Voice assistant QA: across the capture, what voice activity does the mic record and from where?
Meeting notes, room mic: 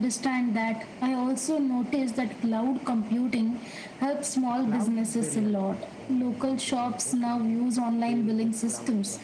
both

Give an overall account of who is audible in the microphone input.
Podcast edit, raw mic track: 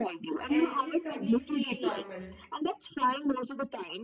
both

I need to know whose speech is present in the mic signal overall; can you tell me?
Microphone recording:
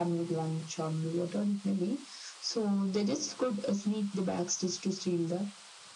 echo only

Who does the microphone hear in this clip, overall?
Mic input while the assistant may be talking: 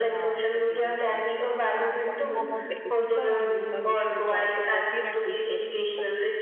both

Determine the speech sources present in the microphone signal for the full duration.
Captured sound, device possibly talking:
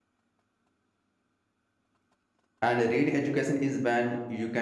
user only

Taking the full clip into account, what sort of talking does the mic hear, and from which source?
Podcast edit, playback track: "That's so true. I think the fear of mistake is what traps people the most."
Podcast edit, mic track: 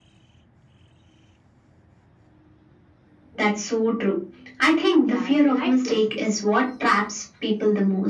both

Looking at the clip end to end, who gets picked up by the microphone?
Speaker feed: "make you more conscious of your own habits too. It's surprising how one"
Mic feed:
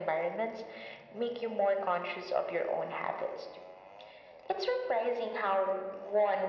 echo only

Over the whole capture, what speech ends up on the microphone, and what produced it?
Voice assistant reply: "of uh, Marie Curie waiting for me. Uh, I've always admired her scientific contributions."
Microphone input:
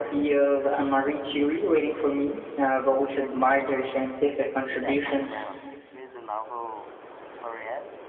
both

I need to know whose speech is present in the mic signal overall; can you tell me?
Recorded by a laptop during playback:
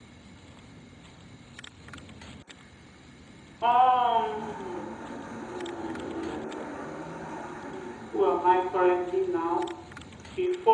echo only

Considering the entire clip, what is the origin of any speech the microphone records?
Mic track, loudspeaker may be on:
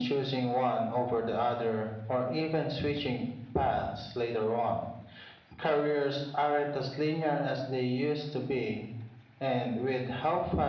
echo only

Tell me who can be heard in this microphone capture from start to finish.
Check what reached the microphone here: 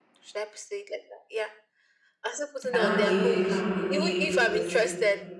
both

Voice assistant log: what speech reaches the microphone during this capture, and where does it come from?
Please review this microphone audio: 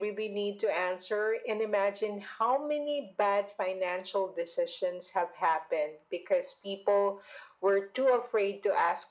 echo only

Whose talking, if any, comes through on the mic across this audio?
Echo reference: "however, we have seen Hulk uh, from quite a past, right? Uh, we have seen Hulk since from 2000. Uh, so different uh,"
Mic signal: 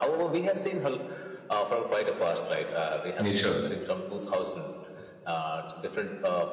both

